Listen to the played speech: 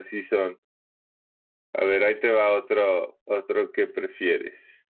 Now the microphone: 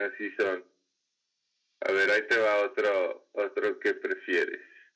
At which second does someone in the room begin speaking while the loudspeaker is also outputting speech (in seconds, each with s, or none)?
none